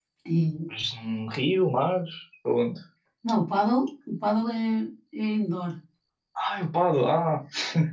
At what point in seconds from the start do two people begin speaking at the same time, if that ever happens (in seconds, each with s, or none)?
none